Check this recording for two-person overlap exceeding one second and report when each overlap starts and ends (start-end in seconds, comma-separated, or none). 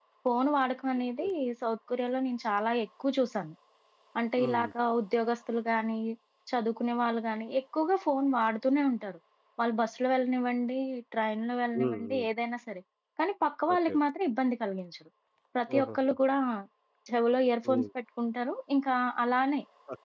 none